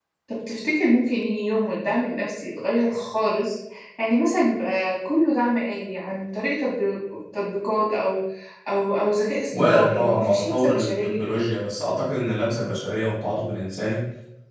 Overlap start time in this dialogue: 9.5 s

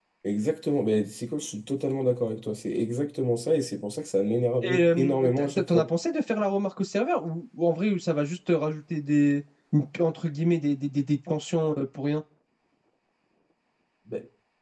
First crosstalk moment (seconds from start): 4.6 s

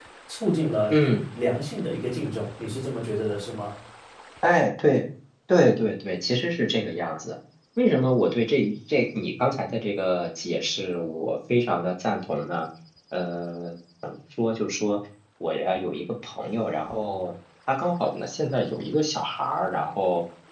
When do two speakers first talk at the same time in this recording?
none

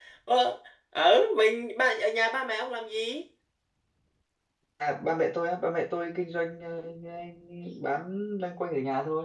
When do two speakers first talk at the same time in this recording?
none

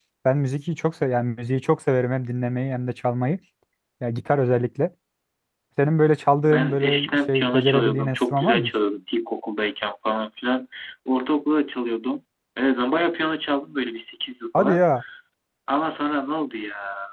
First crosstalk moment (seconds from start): 6.4 s

